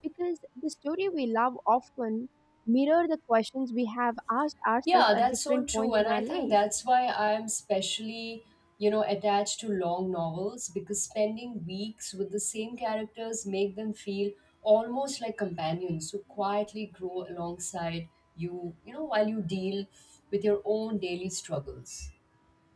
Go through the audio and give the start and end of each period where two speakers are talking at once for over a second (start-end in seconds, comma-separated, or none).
4.9-6.6